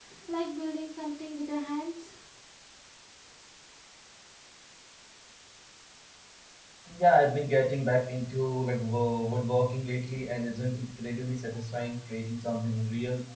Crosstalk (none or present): none